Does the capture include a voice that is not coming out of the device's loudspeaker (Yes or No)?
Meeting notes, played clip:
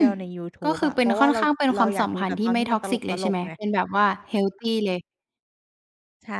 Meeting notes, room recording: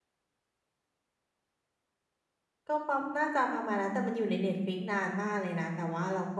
Yes